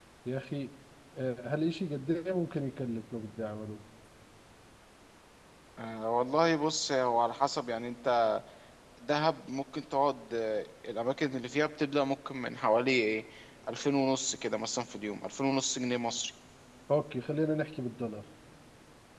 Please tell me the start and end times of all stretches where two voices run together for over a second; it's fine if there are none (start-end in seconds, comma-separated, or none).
none